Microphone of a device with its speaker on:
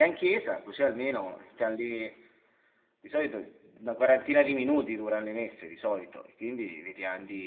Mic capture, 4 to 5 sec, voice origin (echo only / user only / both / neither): user only